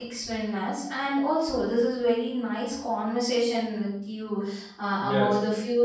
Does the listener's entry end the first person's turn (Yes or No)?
No